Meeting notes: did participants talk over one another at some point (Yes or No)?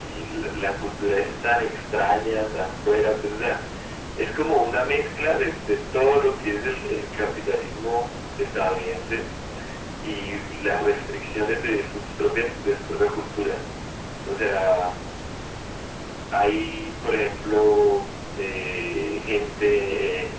No